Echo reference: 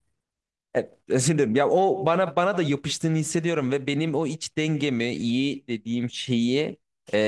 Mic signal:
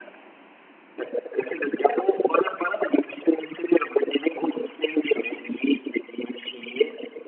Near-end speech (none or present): none